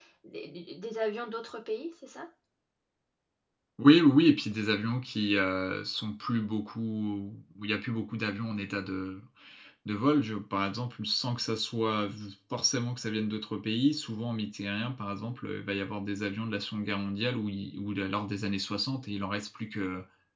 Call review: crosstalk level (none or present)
none